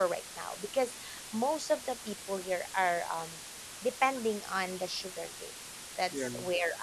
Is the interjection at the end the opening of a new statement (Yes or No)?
No